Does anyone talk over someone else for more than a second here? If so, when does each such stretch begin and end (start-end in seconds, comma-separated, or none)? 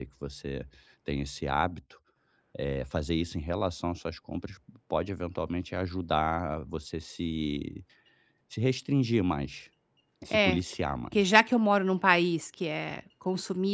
none